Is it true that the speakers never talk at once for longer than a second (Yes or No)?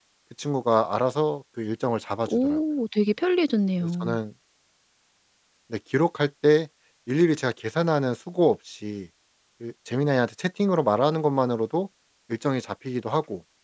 Yes